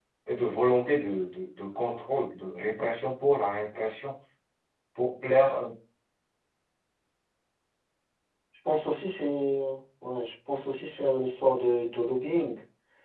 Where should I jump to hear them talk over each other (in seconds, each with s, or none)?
none